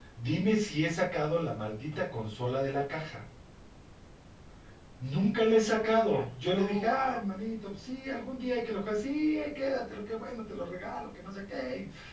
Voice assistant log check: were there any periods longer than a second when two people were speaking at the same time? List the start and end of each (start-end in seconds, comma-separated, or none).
5.7-7.2